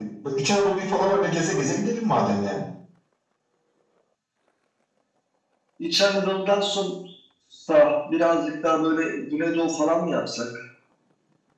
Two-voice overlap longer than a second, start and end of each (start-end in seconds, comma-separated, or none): none